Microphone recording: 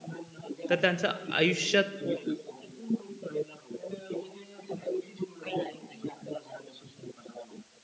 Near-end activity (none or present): present